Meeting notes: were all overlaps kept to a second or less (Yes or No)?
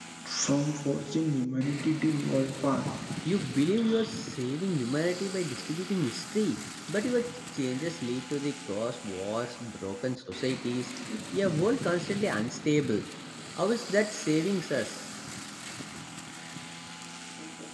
Yes